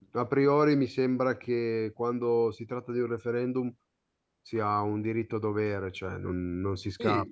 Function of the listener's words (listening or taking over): taking over